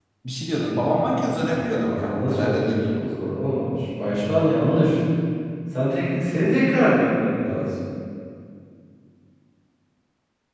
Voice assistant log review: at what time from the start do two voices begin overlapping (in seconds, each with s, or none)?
1.4 s